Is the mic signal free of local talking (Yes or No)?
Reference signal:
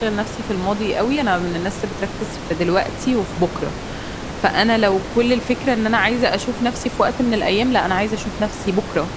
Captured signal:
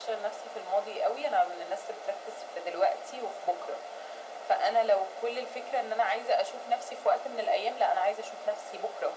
Yes